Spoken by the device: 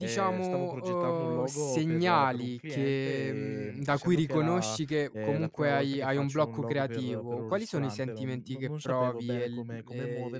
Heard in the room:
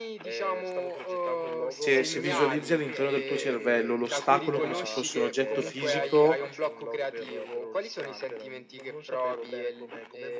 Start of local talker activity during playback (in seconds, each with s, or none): 1.8 s